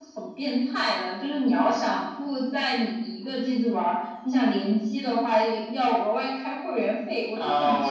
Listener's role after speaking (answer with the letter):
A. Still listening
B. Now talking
B